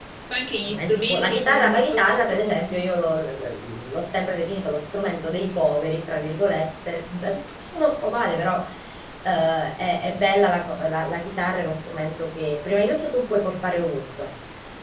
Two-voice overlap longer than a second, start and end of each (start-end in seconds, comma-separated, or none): 0.7-2.8